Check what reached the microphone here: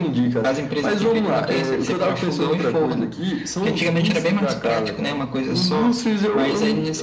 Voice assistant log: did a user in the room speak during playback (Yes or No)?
No